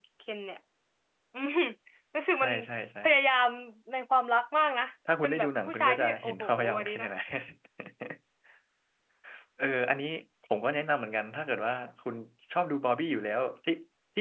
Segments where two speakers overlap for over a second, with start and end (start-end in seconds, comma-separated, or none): 5.2-7.1